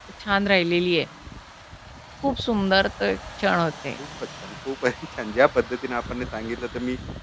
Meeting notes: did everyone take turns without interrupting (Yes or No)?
Yes